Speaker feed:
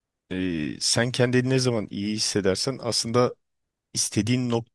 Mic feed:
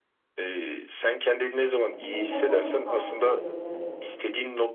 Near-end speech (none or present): present